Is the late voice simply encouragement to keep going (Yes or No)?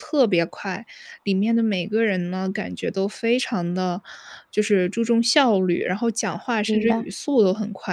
Yes